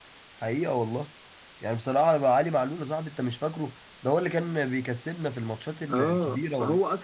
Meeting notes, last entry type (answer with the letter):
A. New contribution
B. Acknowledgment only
A